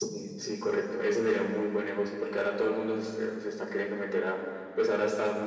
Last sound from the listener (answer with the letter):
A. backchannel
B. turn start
A